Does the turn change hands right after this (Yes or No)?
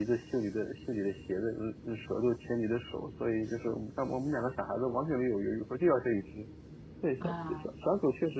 No